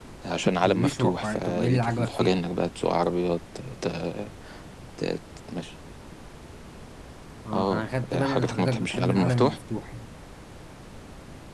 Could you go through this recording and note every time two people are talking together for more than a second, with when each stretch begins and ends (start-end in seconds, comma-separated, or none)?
0.6-2.3, 7.5-9.6